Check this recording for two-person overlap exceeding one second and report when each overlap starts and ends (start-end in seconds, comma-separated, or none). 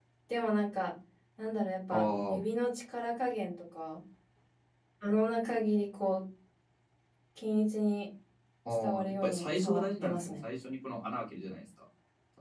9.1-10.3